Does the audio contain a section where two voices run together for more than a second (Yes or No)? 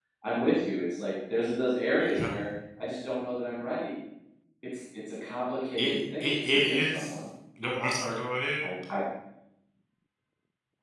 Yes